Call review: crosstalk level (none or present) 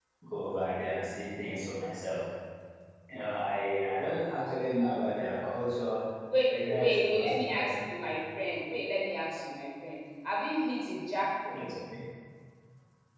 present